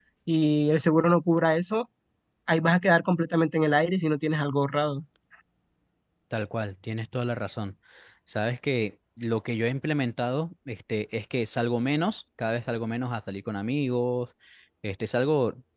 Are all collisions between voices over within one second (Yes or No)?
Yes